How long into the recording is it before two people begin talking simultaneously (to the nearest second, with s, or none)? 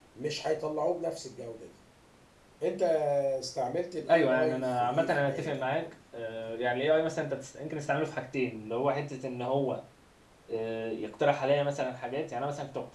4 s